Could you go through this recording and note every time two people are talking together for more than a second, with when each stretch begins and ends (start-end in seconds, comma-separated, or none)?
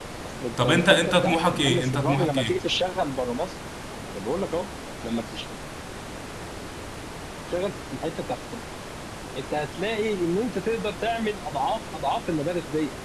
0.6-2.7